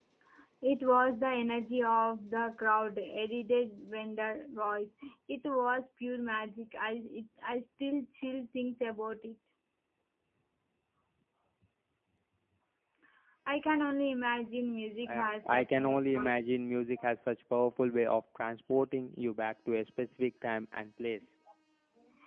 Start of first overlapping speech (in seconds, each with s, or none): 15.0 s